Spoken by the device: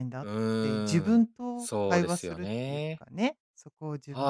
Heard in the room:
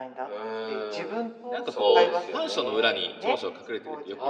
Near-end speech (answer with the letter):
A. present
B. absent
A